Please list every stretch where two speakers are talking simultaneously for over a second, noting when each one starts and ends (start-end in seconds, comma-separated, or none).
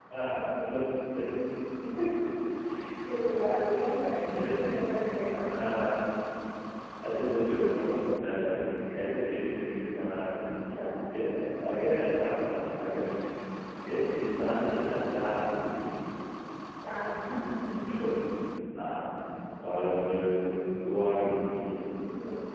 none